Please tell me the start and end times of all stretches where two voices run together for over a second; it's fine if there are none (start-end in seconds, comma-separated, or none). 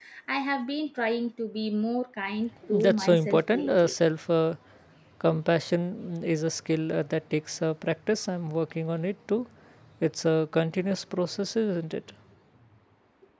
2.7-3.9